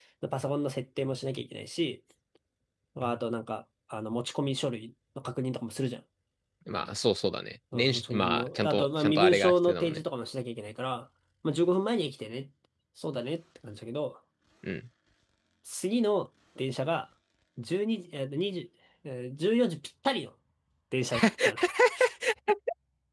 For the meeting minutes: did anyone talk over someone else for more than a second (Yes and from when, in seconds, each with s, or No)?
Yes, from 7.7 s